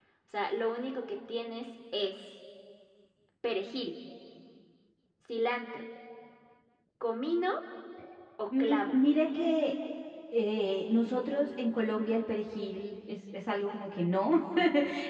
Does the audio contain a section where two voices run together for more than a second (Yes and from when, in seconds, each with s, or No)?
No